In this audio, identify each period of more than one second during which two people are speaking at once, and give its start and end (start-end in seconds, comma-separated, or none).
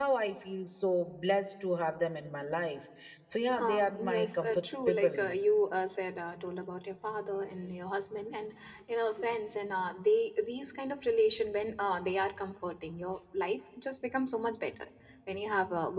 3.6-5.3